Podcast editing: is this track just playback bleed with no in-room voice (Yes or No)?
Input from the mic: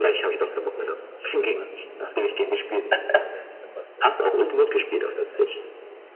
No